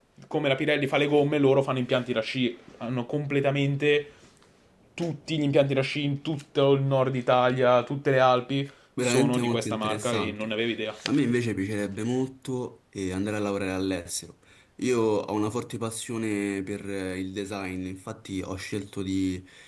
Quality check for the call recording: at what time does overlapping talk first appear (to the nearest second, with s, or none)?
9 s